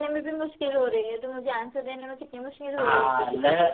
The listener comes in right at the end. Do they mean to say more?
Yes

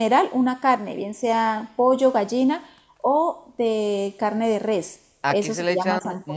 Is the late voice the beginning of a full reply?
Yes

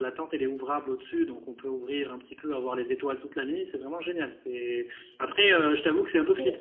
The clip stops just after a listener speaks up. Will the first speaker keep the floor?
Yes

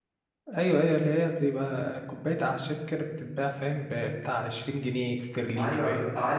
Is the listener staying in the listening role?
No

